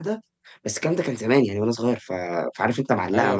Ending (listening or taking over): listening